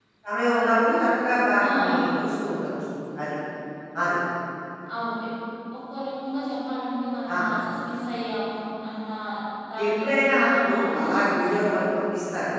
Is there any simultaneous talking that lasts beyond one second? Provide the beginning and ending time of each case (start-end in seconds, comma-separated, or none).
9.8-11.8